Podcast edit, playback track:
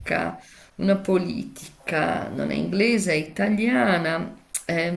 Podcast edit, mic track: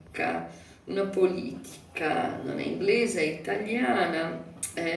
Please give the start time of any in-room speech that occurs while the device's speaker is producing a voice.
none

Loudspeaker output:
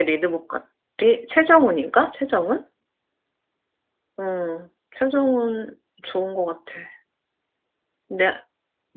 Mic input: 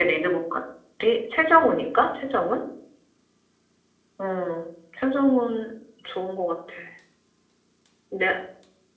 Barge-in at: none

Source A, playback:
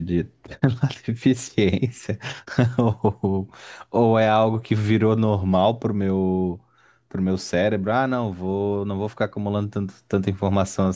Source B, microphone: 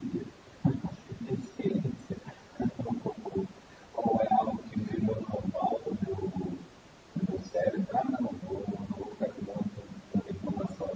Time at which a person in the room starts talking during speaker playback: none

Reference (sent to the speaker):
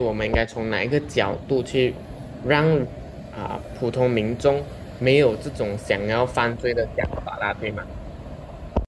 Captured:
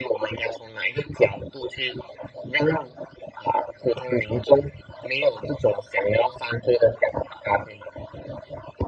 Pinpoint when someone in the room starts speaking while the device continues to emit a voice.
none

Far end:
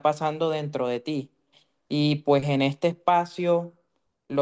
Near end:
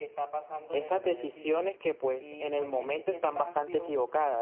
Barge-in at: 0.7 s

